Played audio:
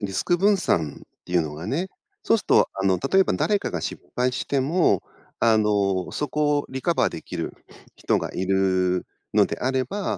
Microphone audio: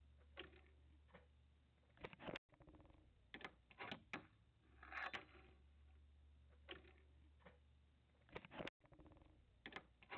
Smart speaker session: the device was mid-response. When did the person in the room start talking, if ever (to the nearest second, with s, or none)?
none